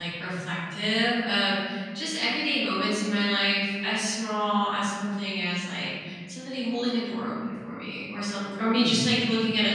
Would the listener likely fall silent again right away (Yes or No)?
Yes